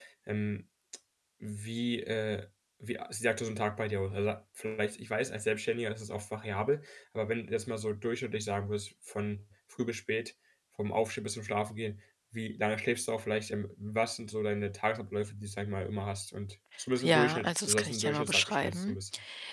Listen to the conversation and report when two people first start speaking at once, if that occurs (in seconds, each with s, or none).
17.0 s